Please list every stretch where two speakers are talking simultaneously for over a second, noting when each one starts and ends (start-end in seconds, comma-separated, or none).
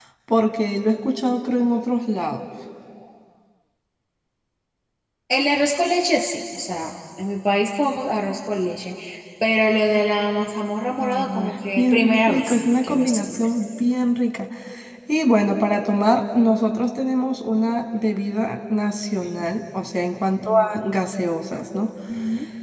11.0-13.4